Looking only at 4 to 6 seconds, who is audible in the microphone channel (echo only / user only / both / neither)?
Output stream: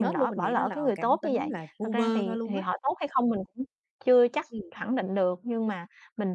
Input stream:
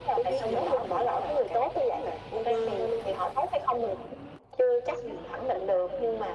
echo only